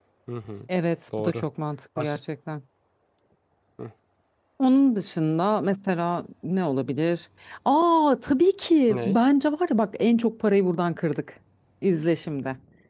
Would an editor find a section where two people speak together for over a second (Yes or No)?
No